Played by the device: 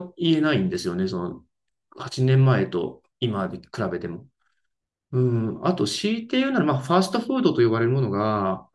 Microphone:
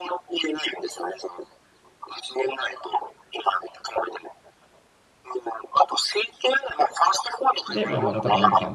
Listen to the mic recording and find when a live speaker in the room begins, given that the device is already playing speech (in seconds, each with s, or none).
7.7 s